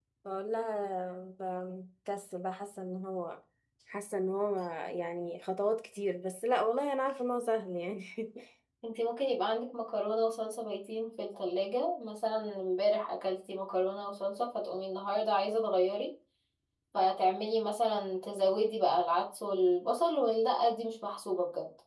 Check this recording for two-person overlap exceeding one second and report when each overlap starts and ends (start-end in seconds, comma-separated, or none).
none